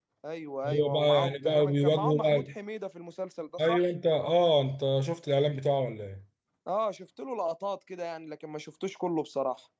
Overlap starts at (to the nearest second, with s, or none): 1 s